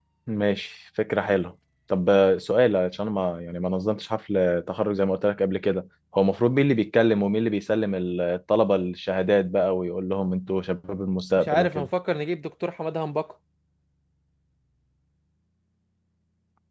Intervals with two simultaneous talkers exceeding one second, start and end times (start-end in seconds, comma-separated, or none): none